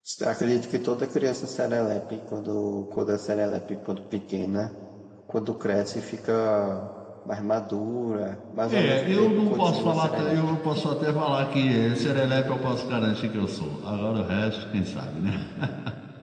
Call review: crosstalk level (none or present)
present